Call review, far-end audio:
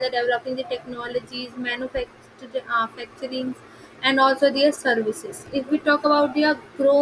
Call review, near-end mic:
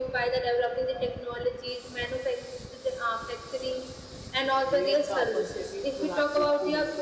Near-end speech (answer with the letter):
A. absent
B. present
B